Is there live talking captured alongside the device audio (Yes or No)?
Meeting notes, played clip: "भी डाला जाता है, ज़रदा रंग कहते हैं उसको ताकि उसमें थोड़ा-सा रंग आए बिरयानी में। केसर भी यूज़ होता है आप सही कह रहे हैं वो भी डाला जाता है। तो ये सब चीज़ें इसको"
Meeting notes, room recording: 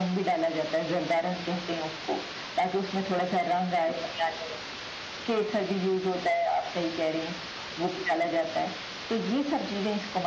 No